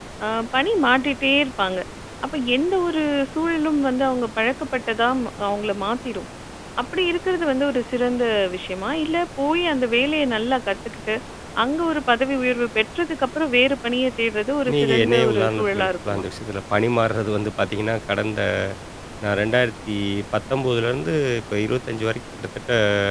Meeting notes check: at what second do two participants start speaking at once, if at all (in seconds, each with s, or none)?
14.7 s